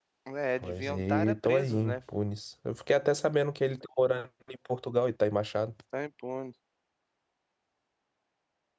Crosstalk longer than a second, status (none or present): present